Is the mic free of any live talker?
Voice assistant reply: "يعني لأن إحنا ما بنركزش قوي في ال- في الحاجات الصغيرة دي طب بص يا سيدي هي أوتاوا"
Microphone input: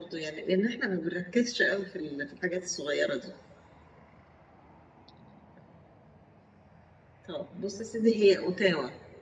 Yes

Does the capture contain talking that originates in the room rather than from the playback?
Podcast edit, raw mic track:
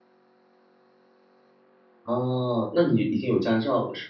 Yes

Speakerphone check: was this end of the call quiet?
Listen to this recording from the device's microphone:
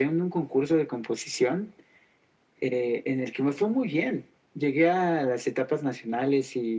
Yes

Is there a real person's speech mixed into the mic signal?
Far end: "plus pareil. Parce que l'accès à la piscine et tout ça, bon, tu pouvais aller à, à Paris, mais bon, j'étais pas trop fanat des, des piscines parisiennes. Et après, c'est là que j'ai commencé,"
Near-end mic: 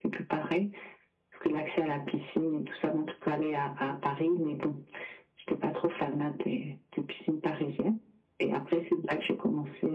No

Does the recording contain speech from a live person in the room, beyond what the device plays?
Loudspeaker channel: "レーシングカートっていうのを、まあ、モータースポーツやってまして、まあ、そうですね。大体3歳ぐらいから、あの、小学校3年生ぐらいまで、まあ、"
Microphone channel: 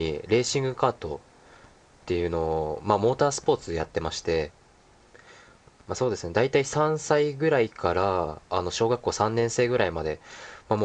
No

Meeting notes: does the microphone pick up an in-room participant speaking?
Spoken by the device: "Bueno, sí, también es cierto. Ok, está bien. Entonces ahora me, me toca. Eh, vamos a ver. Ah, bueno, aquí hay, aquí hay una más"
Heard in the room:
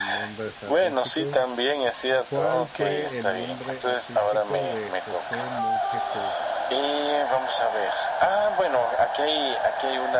Yes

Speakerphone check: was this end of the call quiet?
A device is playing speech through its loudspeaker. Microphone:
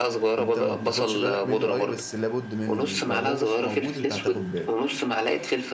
No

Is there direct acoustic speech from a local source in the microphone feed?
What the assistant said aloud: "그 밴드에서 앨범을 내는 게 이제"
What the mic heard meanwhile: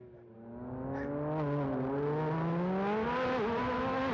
No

